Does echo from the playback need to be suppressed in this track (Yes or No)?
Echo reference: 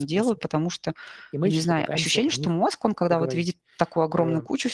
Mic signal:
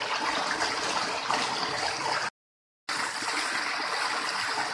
No